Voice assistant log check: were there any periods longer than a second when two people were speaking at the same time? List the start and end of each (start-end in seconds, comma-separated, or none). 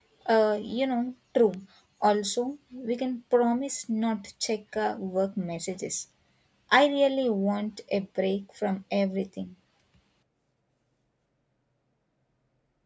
none